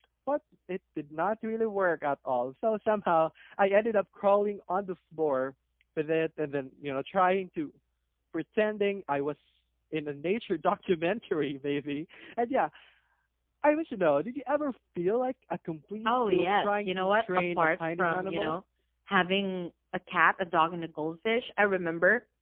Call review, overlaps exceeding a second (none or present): present